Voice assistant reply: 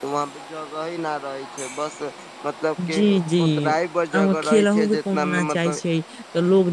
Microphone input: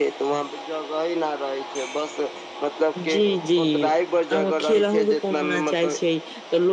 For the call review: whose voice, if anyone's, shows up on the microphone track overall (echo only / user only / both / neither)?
echo only